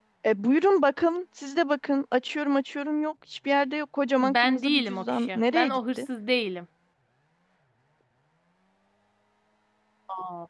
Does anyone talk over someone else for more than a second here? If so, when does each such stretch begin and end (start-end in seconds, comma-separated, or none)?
4.2-6.0